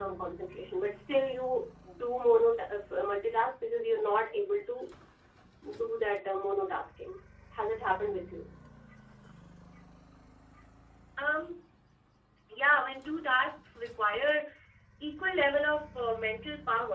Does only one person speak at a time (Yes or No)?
Yes